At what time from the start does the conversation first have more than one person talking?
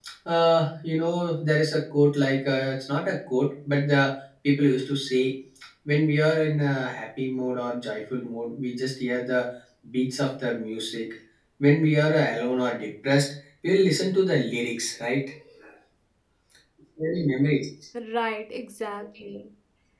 none

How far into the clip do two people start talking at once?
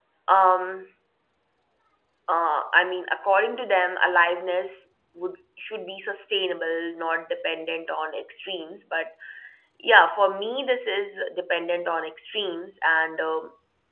none

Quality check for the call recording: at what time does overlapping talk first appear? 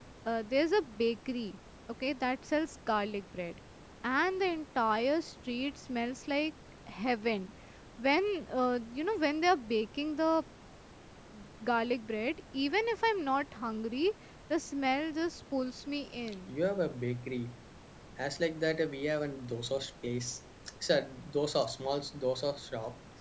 none

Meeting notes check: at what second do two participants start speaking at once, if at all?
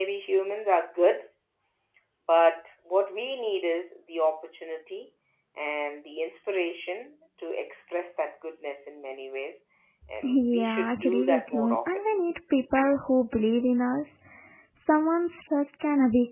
10 s

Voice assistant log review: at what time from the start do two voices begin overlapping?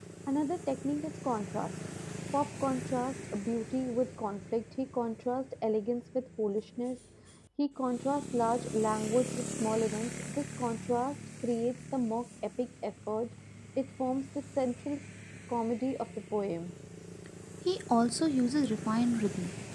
none

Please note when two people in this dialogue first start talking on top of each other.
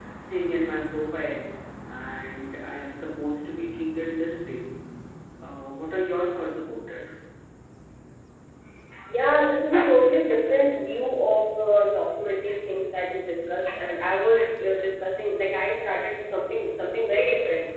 none

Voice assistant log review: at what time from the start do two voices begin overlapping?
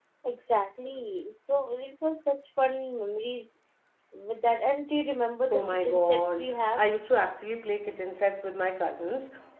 5 s

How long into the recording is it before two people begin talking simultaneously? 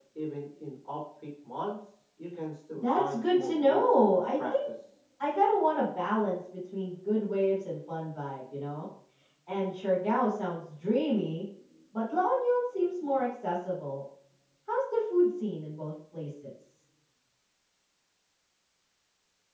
3 s

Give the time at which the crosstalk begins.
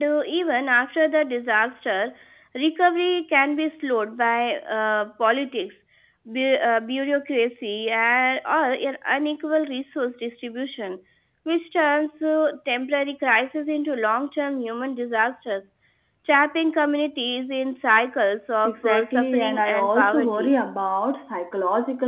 19 s

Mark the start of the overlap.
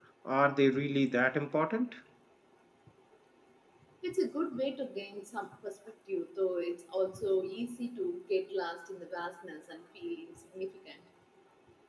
none

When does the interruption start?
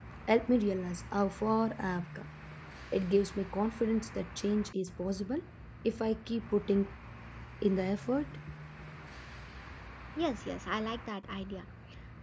none

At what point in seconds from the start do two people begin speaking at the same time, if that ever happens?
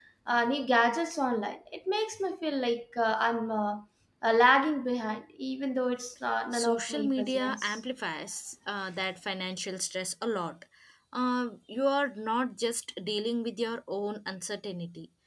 7 s

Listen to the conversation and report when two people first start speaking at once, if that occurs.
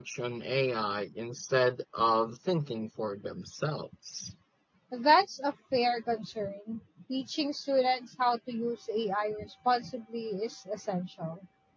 none

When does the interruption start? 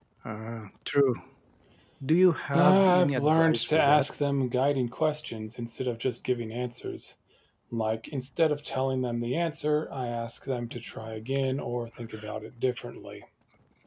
3 s

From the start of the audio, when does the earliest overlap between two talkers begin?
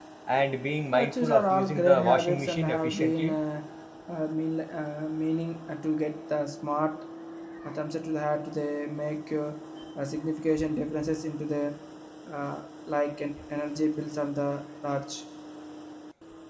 1 s

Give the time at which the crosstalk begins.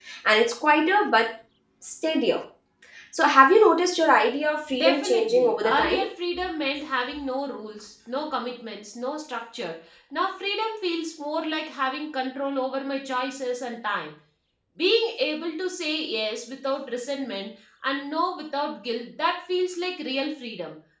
5 s

